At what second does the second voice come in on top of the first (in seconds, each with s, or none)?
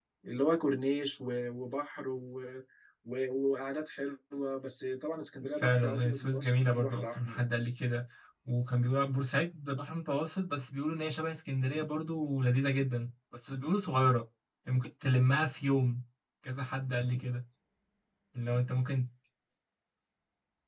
5.6 s